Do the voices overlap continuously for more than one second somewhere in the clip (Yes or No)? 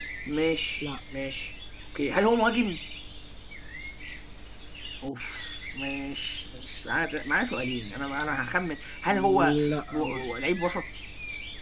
Yes